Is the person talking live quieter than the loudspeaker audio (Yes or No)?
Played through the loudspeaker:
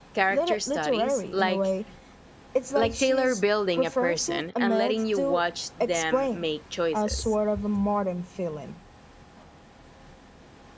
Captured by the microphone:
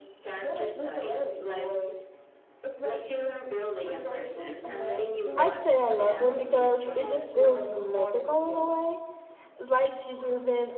No